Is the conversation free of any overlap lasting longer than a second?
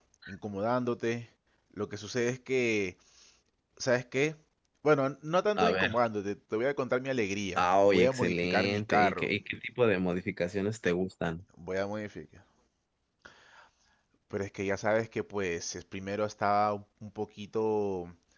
No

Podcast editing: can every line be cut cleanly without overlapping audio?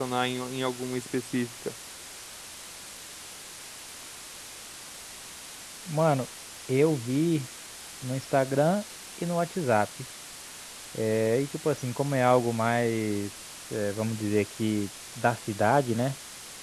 Yes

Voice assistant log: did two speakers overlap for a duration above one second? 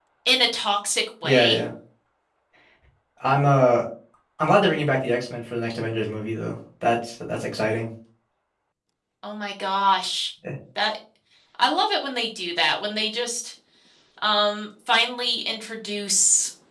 No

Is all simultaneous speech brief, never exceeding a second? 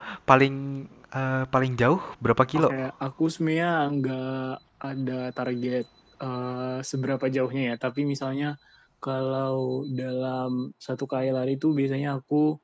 Yes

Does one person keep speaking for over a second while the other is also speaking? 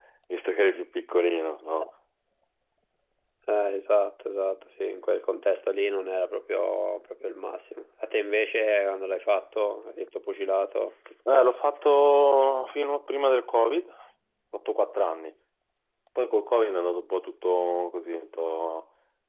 No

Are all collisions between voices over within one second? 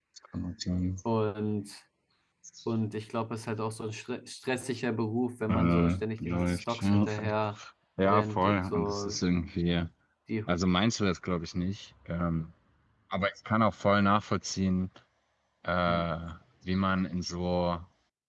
No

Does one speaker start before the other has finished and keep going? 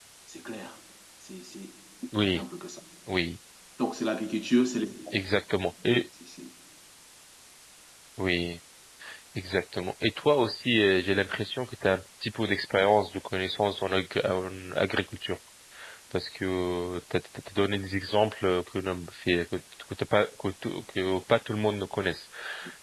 No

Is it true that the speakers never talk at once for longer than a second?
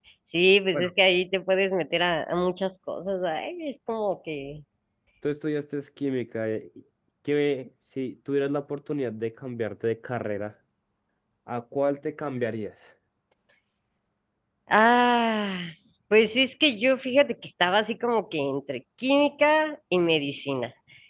Yes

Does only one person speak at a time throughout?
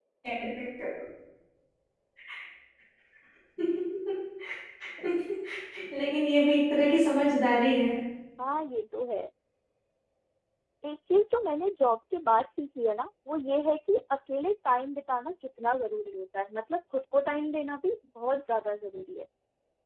Yes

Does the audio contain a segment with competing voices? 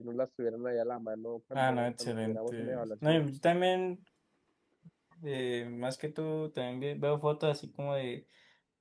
Yes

